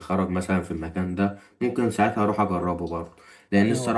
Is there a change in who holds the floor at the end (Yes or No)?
No